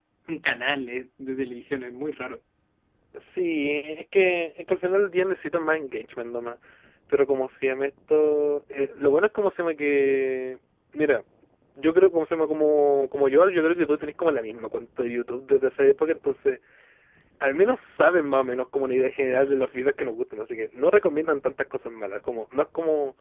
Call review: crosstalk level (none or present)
none